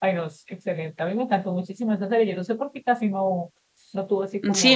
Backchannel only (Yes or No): No